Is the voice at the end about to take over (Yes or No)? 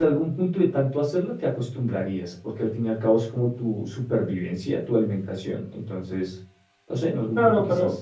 Yes